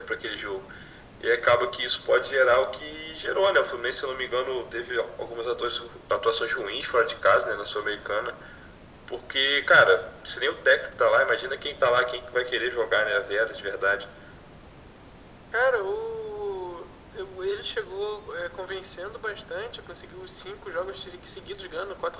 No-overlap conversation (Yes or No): Yes